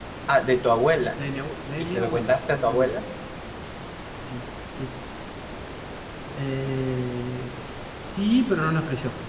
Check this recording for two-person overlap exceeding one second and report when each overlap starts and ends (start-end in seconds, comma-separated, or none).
1.8-3.0